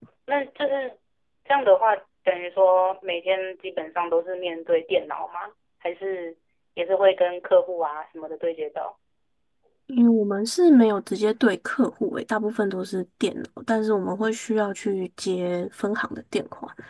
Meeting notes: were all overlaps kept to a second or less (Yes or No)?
Yes